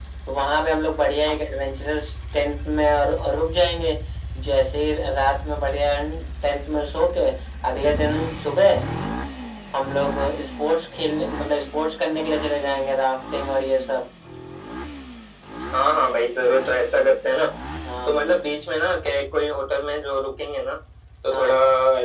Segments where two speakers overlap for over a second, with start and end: none

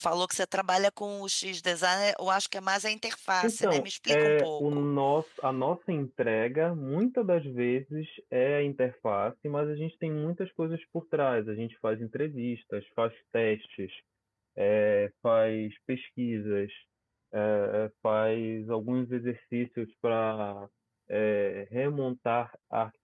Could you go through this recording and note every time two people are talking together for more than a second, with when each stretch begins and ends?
3.4-4.9

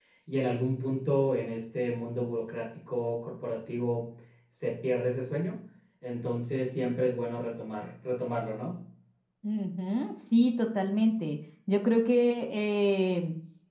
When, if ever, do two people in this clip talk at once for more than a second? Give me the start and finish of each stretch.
none

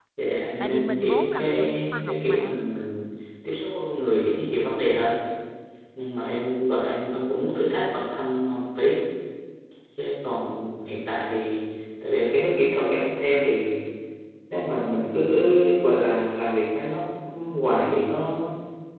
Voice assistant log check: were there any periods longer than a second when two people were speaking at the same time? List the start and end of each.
0.6-2.6

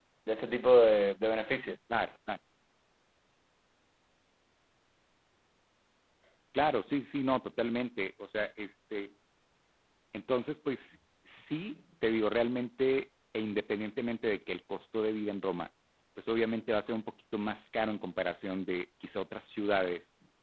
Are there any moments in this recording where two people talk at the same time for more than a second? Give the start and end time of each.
none

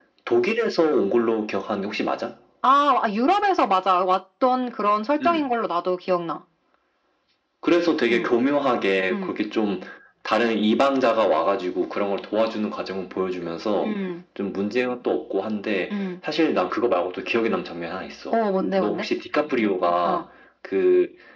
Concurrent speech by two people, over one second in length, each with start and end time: none

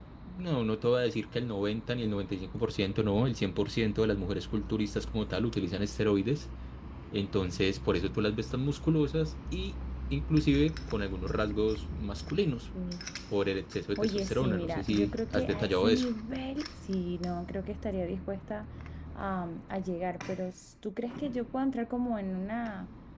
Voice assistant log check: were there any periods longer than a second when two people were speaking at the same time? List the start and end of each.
14.0-16.1

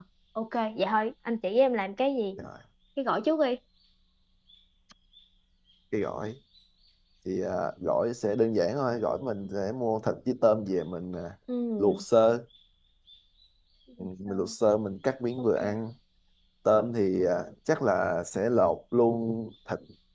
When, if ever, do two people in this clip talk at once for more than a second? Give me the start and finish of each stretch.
none

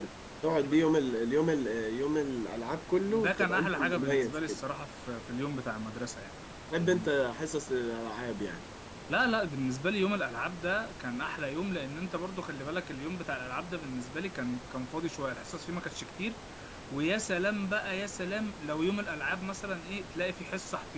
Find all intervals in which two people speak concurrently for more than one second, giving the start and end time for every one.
3.1-4.6

